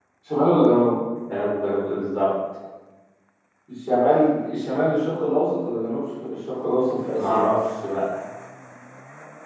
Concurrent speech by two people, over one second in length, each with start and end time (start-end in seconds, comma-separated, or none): none